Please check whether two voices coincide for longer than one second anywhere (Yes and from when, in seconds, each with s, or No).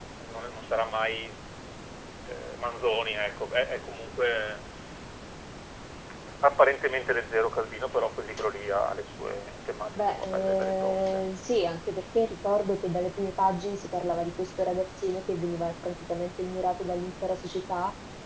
Yes, from 10.0 s